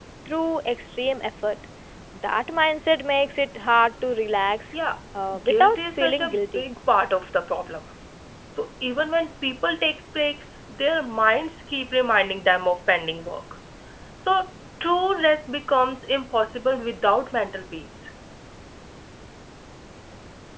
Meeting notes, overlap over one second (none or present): present